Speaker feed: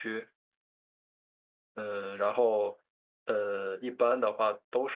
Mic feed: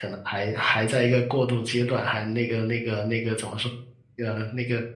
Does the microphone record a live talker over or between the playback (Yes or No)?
Yes